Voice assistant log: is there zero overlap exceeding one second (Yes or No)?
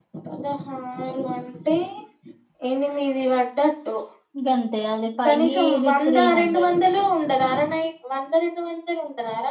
No